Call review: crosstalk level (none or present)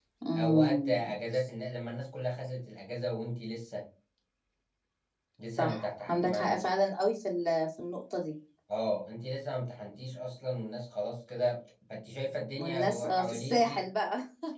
present